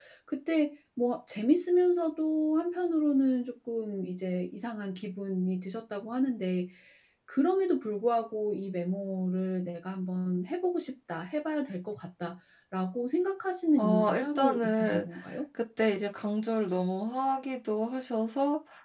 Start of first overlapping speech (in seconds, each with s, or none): 13.8 s